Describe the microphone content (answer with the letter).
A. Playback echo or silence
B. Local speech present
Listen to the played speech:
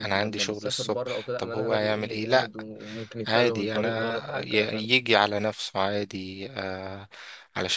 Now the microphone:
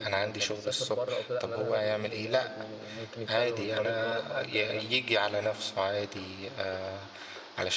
A